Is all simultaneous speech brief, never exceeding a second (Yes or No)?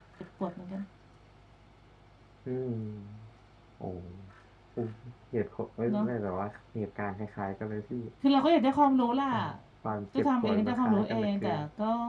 No